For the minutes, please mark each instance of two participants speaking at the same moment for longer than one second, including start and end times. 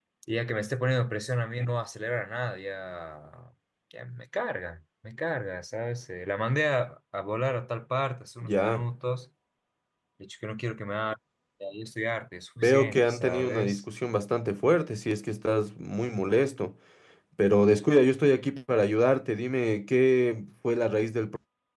12.6-13.8

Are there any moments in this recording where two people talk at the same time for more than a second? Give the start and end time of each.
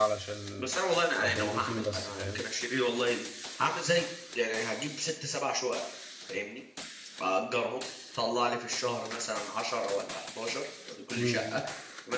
1.2-2.4

